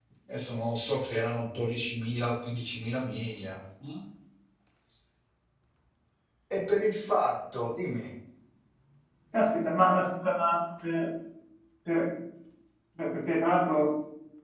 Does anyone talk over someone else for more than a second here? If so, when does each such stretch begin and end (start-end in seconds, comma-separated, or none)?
none